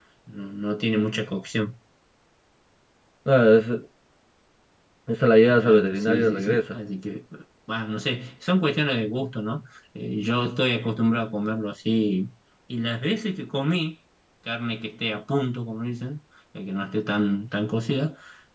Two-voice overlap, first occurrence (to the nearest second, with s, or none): 6 s